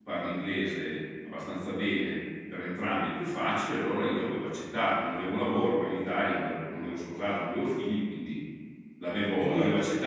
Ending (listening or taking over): listening